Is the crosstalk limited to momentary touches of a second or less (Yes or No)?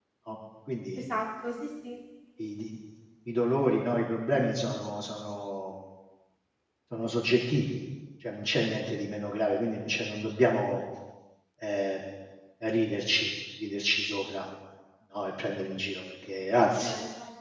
Yes